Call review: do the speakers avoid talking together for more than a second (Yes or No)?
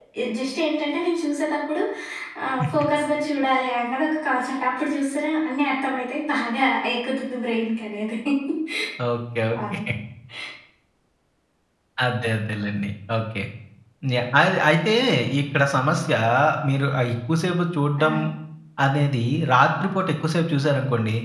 Yes